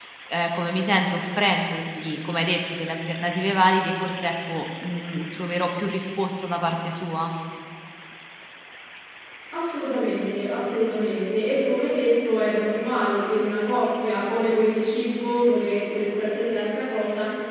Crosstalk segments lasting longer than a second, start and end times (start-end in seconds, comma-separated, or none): none